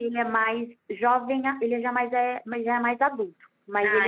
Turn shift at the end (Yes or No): No